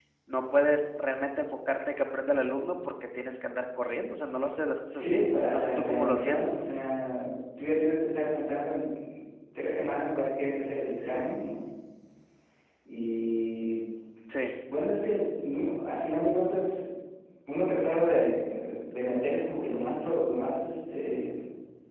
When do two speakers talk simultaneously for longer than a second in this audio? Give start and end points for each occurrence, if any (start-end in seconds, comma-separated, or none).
5.0-6.6